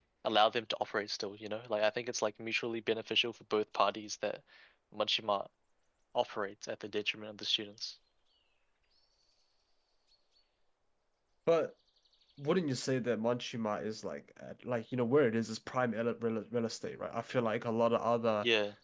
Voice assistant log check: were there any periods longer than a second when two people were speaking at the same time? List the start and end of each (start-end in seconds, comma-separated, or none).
none